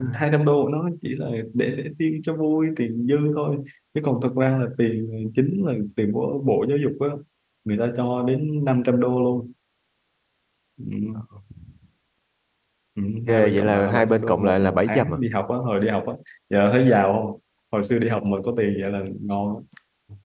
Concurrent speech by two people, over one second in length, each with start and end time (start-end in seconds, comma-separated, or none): 13.3-15.2